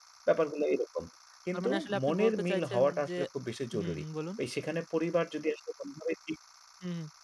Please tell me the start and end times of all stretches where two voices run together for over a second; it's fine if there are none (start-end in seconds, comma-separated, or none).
1.5-3.1